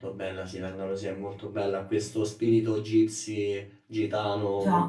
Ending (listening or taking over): listening